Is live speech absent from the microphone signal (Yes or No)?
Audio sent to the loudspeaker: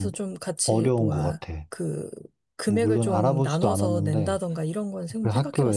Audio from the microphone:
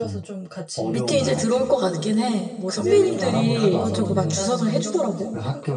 No